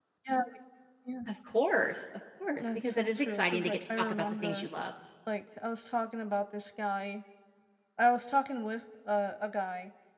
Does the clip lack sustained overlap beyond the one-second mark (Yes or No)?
No